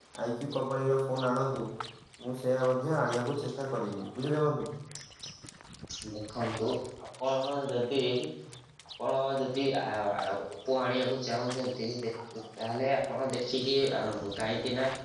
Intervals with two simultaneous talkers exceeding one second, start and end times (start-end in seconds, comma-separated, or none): none